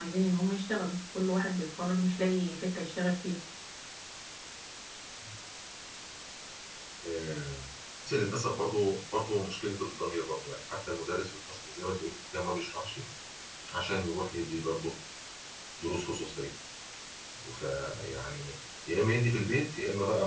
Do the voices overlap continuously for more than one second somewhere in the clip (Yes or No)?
No